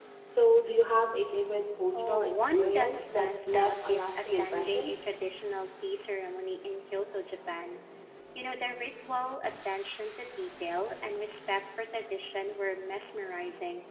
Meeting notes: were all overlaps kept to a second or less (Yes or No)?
No